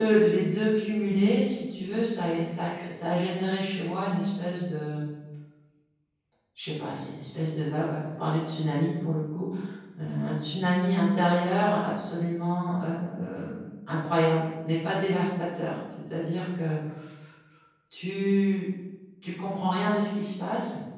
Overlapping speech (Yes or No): No